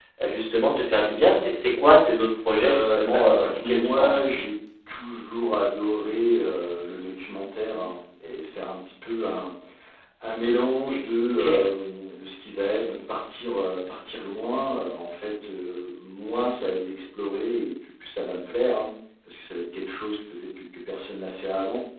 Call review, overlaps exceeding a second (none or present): present